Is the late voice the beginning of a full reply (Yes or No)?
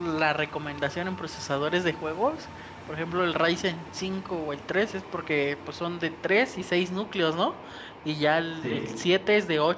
No